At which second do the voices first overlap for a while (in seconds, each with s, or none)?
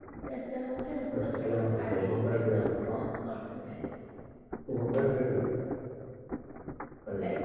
1.1 s